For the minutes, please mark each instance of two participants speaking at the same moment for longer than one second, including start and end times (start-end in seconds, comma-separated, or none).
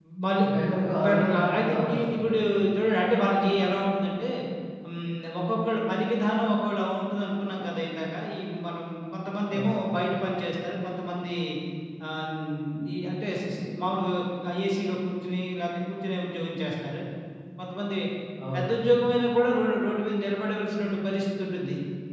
0.5-2.4